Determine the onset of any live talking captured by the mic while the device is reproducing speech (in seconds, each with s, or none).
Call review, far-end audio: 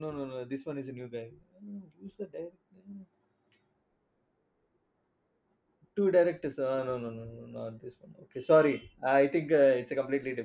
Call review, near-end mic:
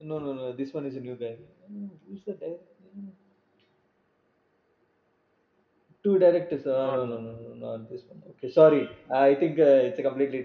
6.7 s